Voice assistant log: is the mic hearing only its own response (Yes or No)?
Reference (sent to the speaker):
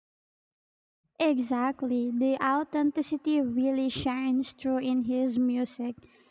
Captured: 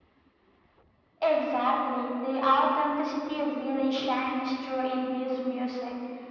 Yes